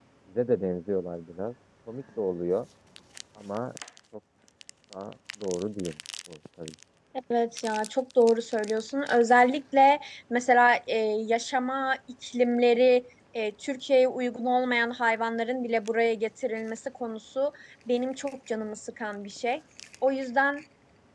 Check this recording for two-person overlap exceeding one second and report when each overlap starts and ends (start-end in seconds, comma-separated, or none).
none